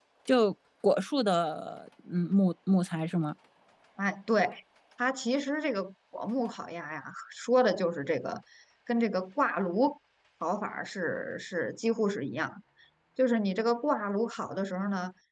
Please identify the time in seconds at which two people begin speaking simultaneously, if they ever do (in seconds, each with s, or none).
none